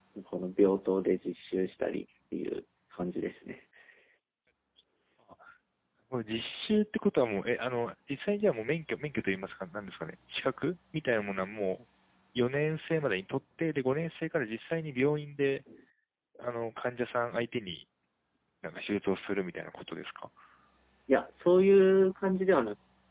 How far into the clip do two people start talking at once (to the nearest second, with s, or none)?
none